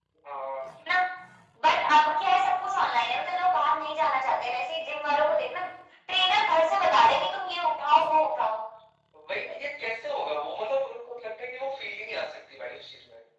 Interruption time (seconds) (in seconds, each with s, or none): none